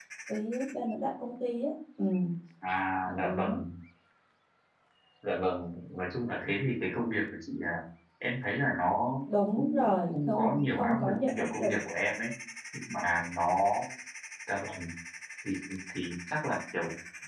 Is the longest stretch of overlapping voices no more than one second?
No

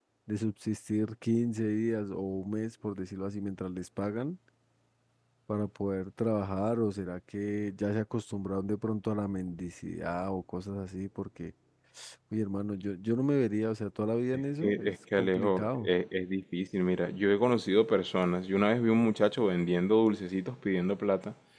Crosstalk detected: Yes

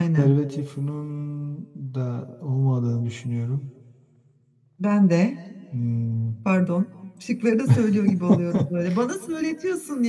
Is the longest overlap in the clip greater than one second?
No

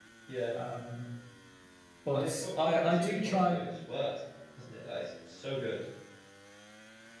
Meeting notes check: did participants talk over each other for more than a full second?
Yes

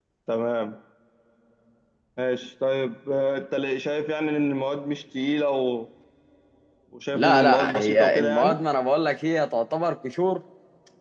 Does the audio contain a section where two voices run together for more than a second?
Yes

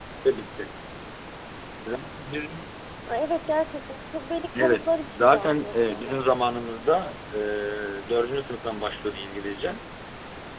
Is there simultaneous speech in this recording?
Yes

